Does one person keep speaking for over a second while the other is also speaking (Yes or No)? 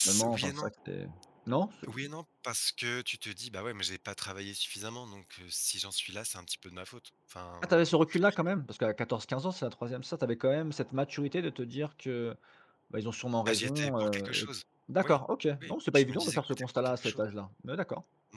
Yes